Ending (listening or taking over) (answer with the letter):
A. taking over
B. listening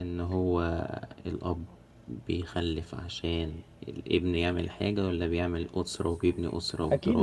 A